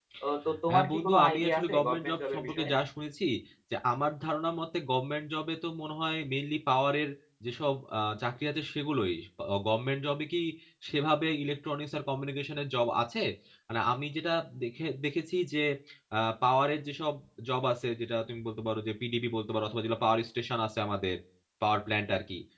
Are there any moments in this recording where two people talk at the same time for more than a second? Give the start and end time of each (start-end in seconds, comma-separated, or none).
0.7-2.7